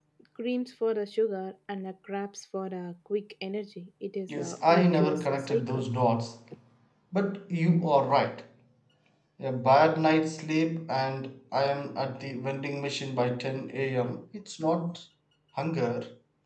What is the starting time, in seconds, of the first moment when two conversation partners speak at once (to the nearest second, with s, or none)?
4 s